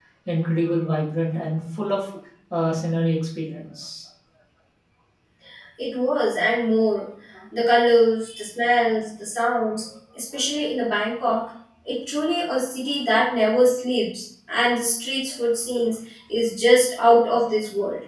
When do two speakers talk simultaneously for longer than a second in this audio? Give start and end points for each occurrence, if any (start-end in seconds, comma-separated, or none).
none